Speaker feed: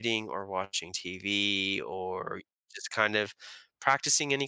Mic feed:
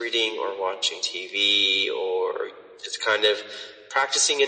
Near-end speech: none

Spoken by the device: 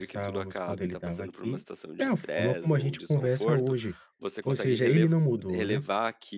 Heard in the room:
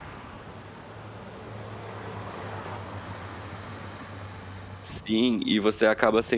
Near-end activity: present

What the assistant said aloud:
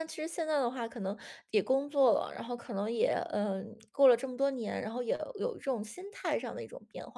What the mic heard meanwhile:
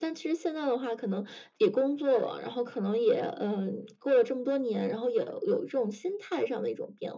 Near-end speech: none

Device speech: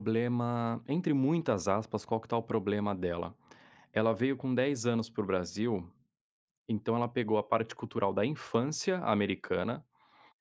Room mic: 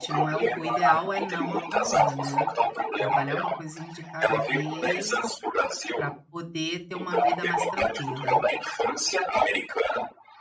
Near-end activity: present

